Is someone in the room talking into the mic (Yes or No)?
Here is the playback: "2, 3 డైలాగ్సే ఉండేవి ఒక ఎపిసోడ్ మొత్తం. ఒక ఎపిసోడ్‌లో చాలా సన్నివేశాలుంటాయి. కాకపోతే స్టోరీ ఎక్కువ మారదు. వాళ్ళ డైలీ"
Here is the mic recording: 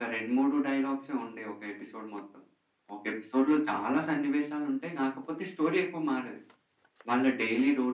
No